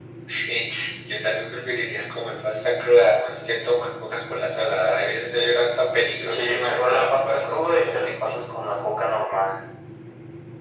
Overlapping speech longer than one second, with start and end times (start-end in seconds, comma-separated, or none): 6.3-8.3